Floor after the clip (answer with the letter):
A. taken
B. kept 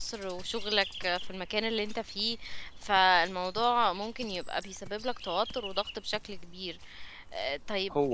B